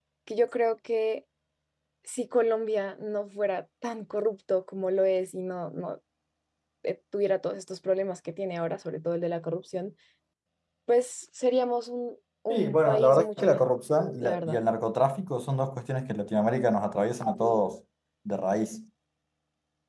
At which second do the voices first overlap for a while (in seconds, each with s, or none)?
12.5 s